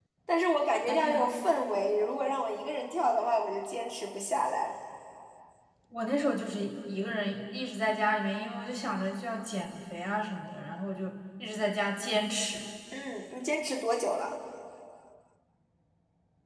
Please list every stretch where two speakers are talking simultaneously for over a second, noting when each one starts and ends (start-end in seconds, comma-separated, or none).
none